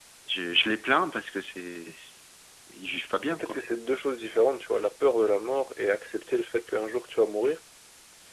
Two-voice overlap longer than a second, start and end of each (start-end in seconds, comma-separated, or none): none